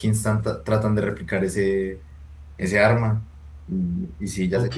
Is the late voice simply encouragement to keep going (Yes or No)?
No